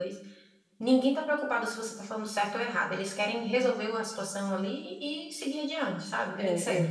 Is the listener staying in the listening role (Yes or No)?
No